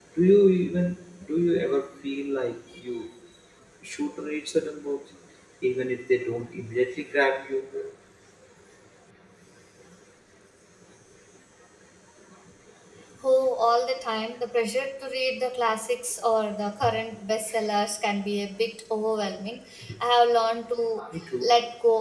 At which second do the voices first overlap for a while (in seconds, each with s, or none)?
none